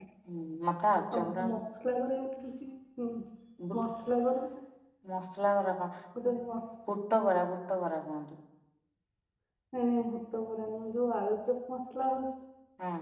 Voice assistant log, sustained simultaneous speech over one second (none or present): none